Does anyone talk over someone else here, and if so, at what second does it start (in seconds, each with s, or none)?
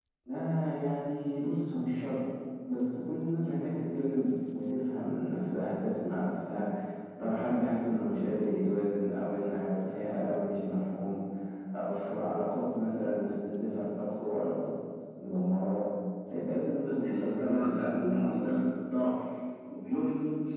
16.8 s